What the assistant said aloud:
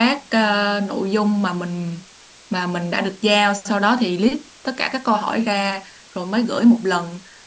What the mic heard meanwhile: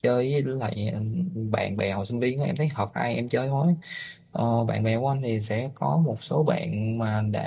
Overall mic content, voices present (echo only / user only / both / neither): user only